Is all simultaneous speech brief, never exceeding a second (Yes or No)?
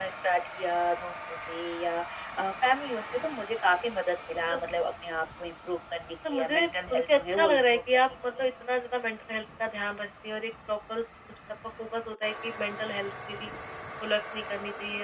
No